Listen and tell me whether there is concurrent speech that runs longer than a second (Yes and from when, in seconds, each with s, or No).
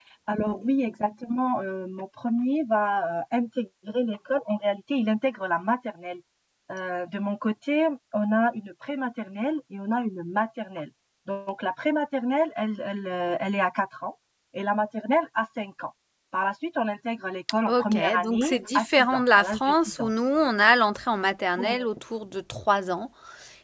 Yes, from 17.7 s